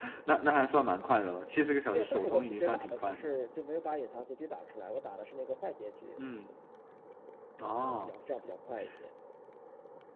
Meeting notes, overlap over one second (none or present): present